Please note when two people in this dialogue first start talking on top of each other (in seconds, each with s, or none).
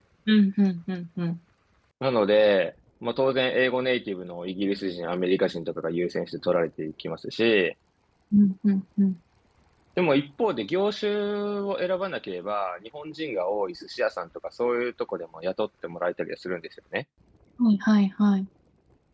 none